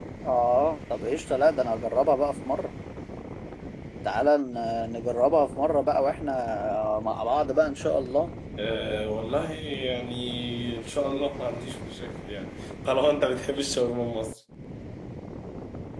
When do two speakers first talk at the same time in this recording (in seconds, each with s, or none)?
none